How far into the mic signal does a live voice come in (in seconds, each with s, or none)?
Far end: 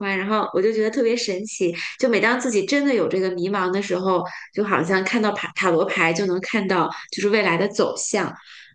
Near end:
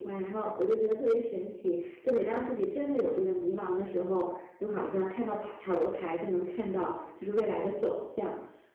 none